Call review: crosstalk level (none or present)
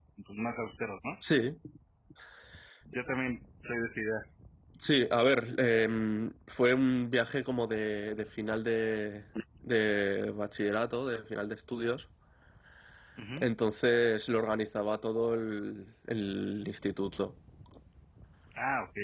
none